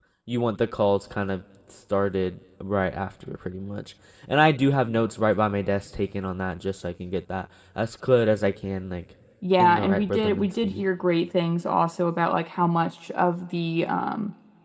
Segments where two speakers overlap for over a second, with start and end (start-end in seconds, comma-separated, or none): 9.6-10.9